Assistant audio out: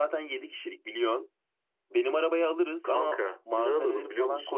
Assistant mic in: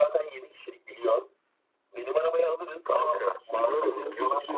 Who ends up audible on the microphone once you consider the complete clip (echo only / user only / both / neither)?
both